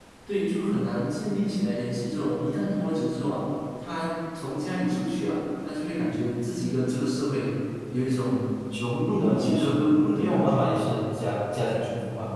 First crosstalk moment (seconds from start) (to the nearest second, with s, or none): 9 s